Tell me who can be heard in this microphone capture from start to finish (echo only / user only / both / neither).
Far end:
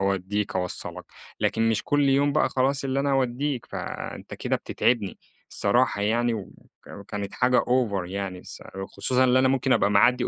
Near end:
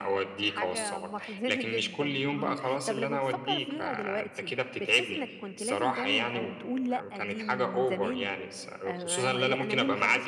both